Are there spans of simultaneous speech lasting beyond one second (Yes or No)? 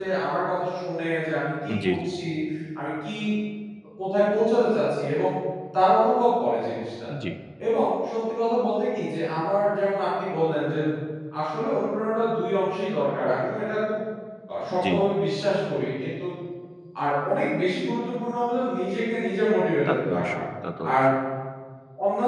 No